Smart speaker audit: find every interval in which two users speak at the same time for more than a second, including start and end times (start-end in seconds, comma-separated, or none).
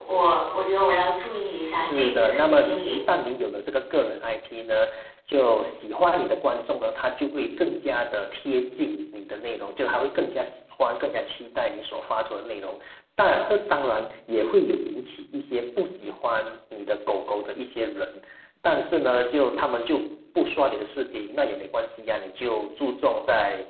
1.7-3.0